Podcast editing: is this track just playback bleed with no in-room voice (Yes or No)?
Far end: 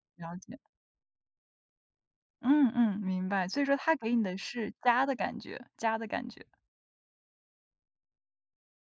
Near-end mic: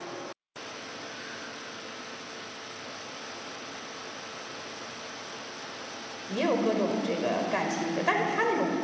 No